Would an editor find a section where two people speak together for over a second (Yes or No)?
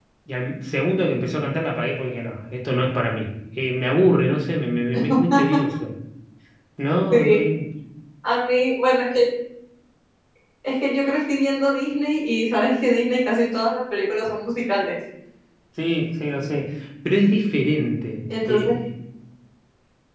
No